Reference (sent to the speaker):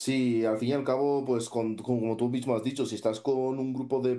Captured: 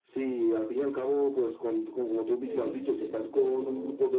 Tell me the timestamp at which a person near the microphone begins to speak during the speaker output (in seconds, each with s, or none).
2.4 s